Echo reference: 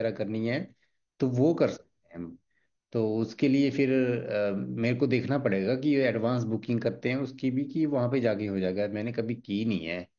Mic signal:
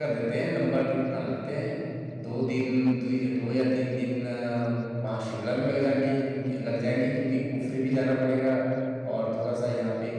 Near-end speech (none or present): present